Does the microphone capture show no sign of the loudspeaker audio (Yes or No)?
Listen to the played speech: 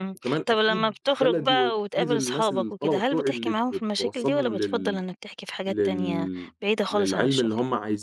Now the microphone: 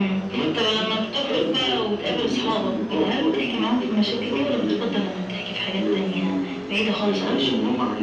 No